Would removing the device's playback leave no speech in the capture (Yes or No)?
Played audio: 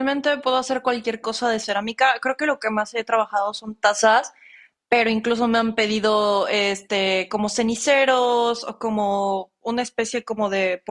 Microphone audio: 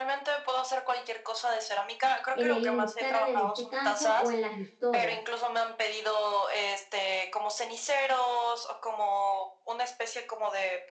No